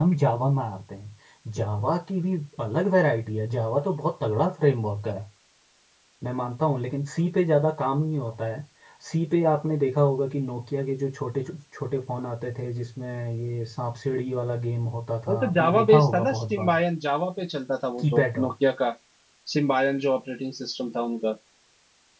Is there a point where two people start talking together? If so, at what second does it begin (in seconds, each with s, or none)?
15.3 s